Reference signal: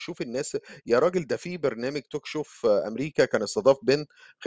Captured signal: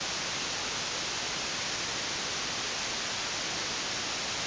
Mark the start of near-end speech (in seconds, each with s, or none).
none